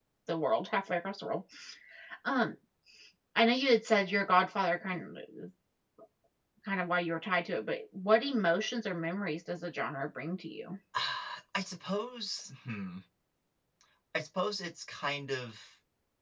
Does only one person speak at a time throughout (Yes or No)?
Yes